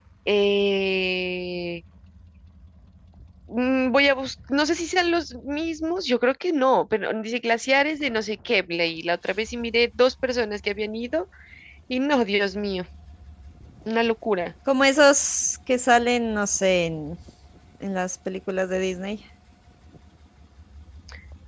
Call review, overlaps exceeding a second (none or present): none